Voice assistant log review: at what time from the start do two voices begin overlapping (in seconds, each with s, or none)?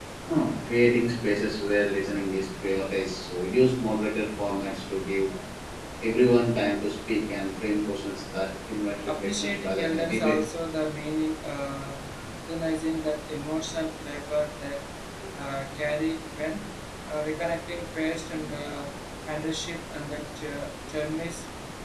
9.1 s